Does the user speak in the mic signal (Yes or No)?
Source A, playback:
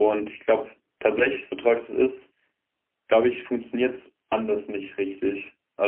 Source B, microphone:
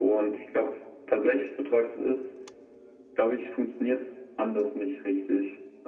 No